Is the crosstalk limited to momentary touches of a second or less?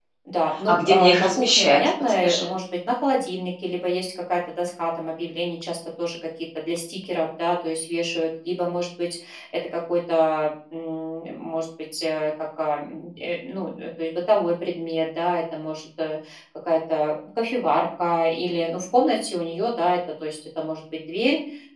No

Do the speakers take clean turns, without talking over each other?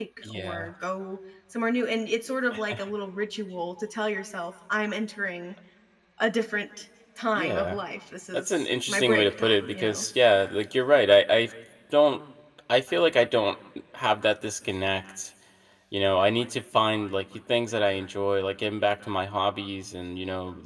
No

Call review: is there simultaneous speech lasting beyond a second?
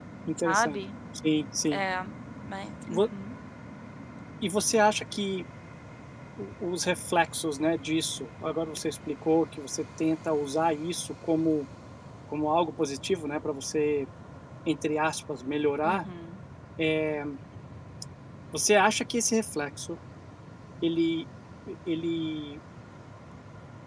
No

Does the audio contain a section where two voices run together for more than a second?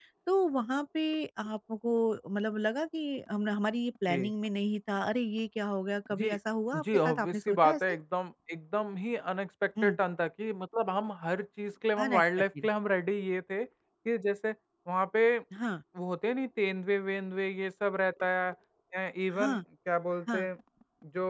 Yes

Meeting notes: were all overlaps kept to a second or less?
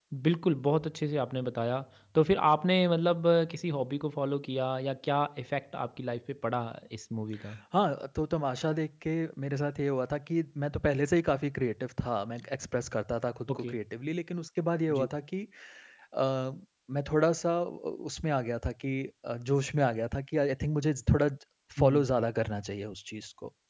Yes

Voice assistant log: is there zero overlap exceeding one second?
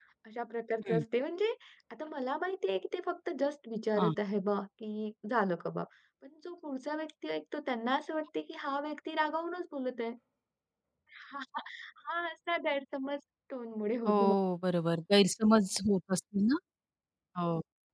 Yes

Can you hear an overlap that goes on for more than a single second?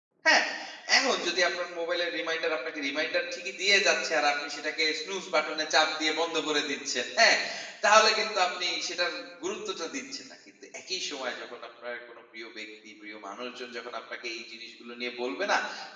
No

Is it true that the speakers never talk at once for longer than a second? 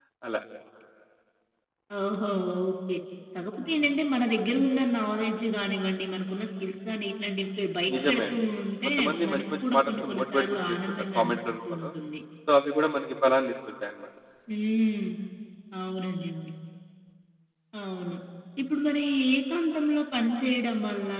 No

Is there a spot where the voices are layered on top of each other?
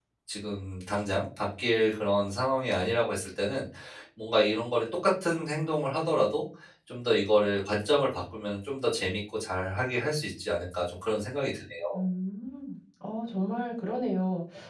No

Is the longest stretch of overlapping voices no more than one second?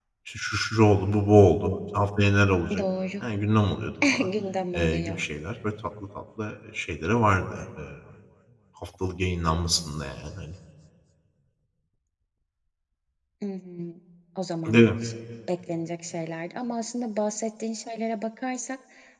Yes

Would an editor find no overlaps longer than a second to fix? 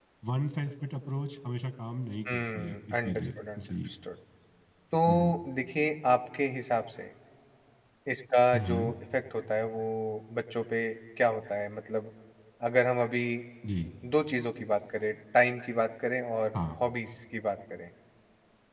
No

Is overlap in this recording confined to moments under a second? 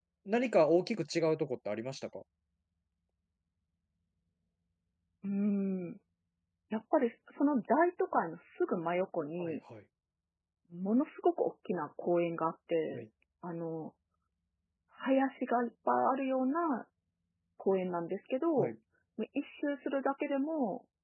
Yes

